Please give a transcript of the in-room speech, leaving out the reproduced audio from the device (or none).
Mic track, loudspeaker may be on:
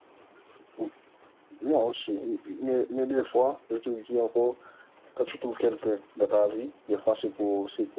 none